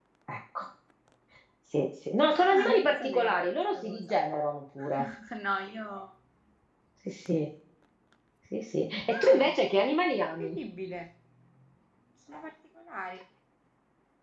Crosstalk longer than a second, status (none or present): present